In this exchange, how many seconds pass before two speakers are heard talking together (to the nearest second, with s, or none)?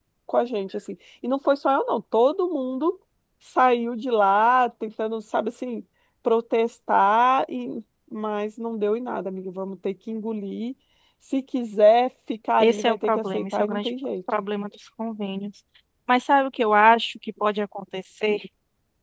13 s